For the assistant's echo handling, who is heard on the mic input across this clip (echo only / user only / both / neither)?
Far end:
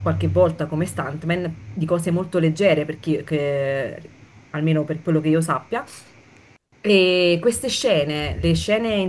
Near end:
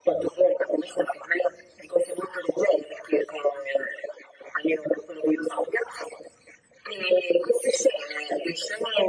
echo only